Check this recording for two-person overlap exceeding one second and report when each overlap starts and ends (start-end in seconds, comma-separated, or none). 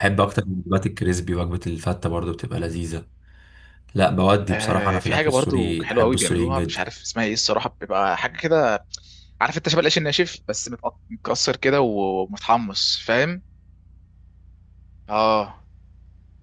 4.5-6.8